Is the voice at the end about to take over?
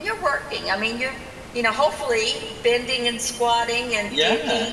No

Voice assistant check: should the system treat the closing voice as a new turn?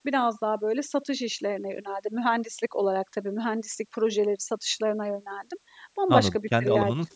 Yes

